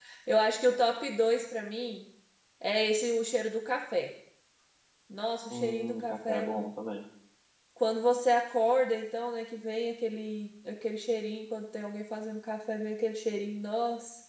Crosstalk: present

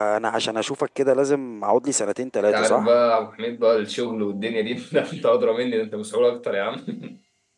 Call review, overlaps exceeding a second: none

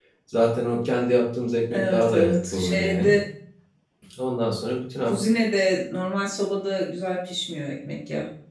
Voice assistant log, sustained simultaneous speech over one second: present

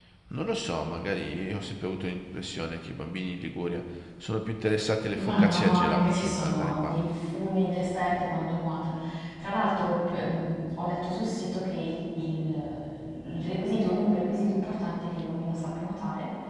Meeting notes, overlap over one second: present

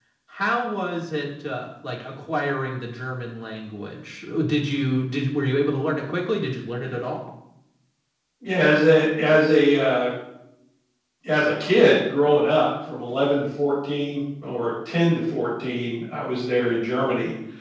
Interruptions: none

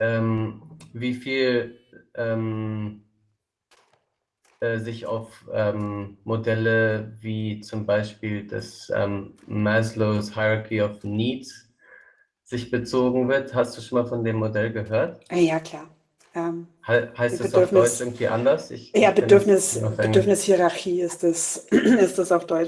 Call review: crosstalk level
present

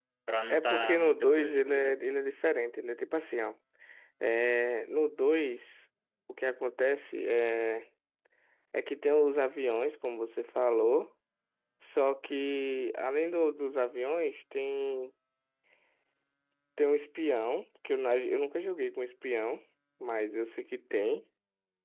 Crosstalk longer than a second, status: present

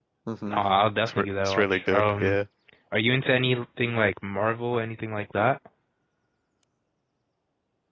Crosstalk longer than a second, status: present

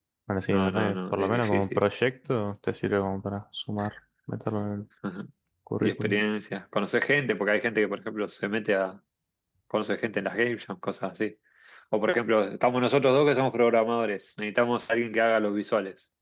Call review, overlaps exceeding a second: present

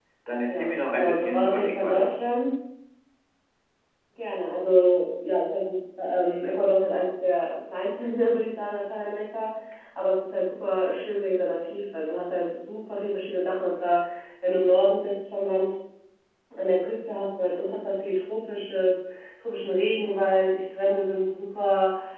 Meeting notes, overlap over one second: present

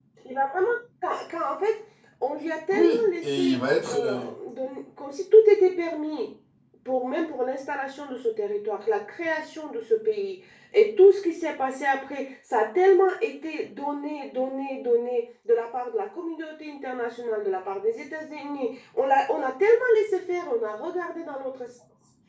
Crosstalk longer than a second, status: present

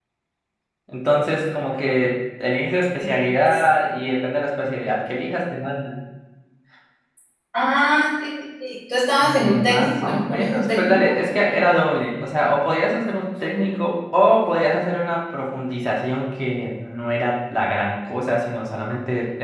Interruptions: present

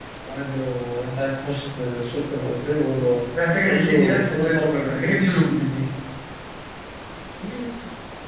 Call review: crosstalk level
present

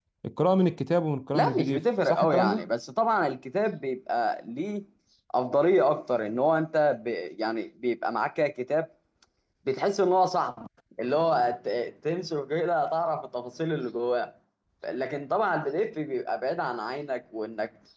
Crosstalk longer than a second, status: present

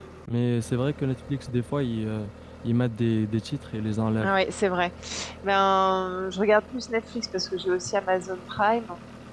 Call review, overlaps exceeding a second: none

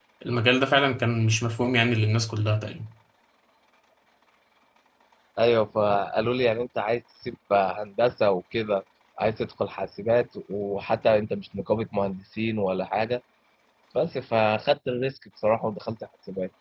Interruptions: none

